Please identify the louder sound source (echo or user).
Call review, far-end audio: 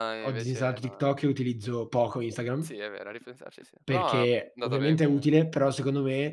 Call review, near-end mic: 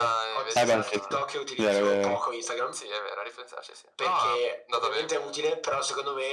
user